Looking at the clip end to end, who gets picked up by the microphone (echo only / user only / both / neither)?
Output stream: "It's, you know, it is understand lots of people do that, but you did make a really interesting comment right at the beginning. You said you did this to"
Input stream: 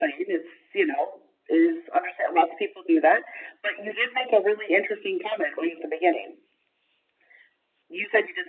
echo only